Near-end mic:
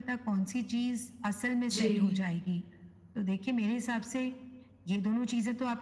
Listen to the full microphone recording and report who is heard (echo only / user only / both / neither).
both